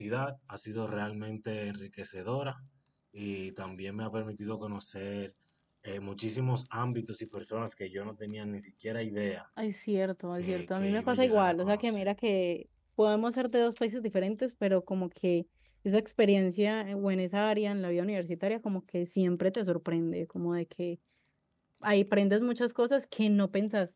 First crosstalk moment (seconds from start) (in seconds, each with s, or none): 10.4 s